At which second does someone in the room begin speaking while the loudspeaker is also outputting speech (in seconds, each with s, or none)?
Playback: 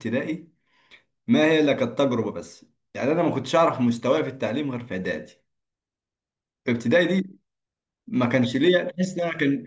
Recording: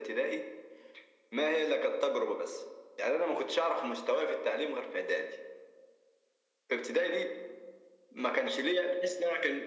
none